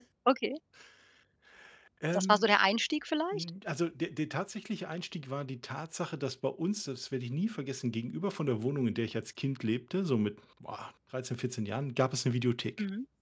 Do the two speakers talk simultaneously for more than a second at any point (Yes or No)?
No